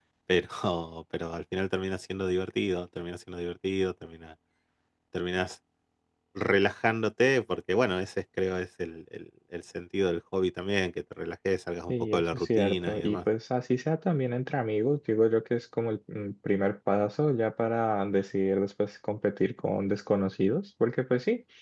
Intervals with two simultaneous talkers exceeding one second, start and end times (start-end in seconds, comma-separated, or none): 11.9-13.2